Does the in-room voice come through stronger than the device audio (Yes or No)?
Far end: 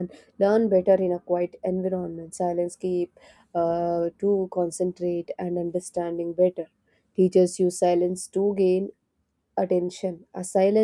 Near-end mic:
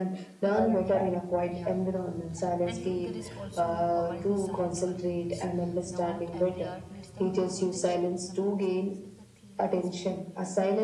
No